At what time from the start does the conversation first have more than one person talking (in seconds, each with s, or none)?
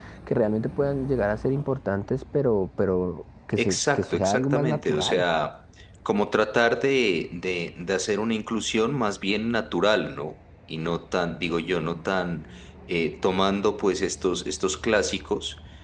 3.6 s